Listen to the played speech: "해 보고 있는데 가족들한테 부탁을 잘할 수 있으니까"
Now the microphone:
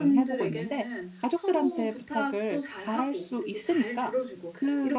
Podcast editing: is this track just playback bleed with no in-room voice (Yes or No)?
No